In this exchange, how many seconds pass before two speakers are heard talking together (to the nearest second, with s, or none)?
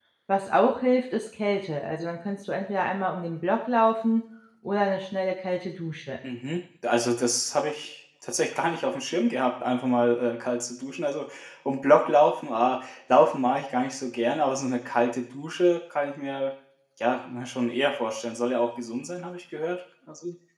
none